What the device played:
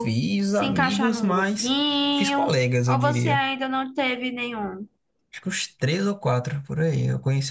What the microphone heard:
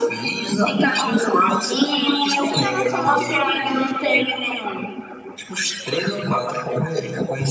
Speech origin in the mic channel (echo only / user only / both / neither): both